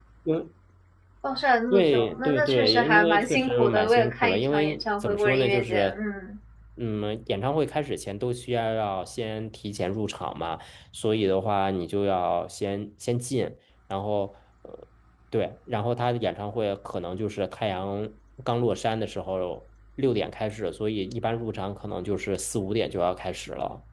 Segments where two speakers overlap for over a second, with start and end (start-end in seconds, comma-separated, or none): 1.7-6.0